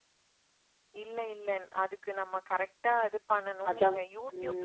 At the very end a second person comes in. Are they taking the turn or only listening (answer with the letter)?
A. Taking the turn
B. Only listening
B